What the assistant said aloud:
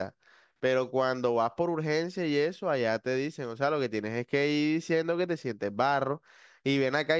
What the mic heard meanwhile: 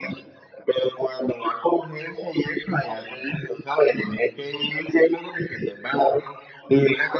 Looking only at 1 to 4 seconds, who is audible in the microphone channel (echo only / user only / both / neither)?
echo only